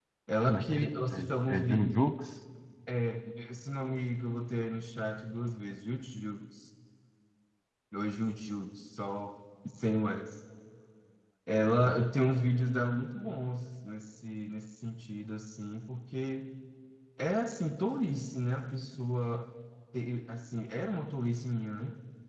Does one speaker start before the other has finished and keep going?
Yes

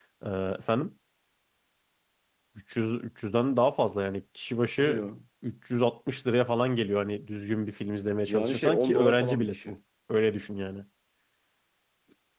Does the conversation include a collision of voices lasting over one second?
Yes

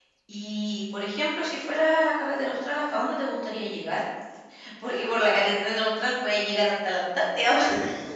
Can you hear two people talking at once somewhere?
No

